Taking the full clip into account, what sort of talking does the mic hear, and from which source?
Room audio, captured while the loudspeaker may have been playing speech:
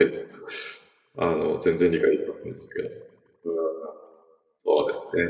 user only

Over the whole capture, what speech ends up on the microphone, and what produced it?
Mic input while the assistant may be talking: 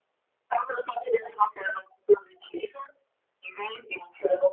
echo only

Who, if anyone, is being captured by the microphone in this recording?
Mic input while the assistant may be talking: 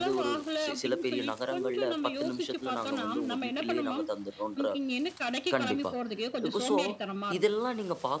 both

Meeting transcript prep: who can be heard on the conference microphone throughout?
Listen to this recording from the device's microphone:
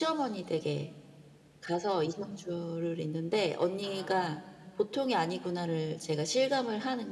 both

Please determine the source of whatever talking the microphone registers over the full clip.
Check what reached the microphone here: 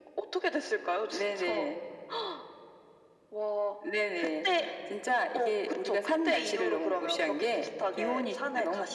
echo only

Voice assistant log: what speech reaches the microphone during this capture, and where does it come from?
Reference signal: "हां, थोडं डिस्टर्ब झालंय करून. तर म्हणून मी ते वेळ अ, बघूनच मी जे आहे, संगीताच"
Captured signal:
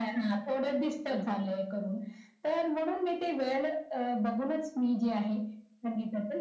both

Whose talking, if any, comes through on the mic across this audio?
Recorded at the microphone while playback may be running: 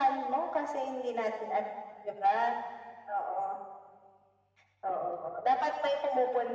echo only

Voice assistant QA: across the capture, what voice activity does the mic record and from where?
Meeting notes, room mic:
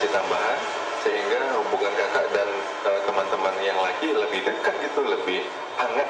echo only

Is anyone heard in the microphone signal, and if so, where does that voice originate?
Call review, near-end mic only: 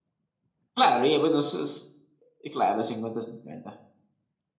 user only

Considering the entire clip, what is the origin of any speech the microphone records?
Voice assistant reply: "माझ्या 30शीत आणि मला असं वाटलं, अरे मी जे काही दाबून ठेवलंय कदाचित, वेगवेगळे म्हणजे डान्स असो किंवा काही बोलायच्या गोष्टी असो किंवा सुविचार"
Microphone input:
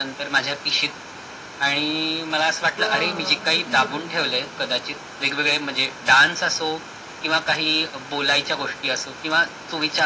both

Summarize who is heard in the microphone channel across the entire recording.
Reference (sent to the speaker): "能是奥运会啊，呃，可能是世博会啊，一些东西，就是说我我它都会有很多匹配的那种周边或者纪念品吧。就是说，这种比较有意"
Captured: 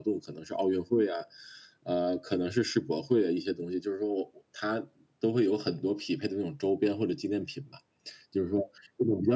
echo only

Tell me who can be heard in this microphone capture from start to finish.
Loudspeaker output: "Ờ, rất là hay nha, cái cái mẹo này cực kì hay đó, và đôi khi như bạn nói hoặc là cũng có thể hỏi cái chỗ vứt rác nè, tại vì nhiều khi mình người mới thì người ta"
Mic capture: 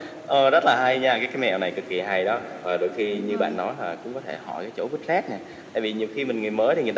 both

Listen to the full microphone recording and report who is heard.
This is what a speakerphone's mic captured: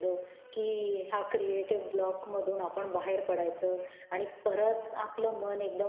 echo only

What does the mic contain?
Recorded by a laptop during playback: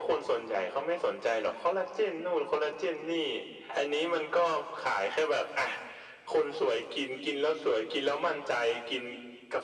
echo only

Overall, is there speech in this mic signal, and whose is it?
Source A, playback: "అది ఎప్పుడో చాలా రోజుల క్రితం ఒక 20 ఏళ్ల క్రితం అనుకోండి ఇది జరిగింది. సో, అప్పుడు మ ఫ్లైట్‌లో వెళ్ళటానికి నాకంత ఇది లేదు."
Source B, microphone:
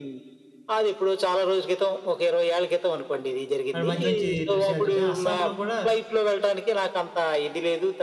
both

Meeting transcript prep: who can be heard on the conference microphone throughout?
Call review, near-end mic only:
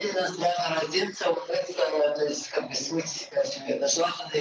echo only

